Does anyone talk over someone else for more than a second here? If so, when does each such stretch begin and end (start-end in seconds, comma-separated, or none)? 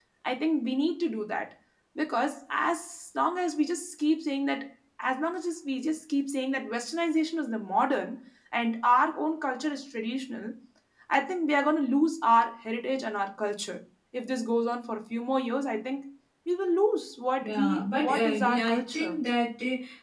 17.5-19.2